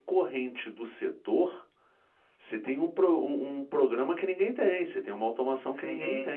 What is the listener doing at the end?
taking over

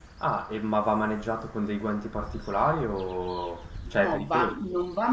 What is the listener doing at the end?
taking over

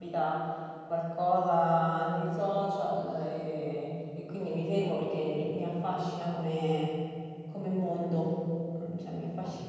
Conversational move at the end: listening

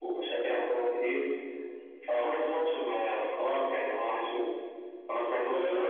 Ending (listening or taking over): listening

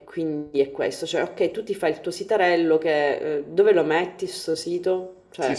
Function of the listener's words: taking over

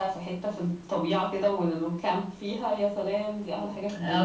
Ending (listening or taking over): taking over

